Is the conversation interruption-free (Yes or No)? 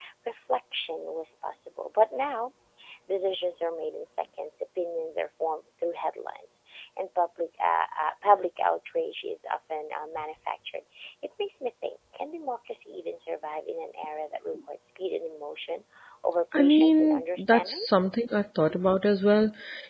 No